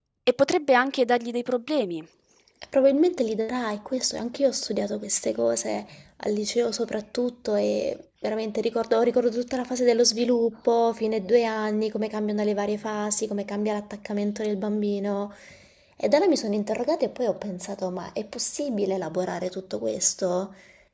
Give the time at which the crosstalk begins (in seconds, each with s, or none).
none